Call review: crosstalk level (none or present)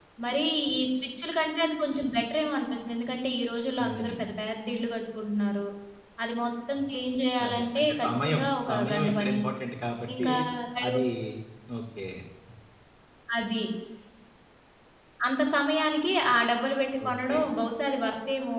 present